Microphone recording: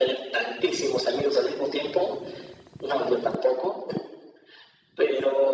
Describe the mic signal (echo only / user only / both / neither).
echo only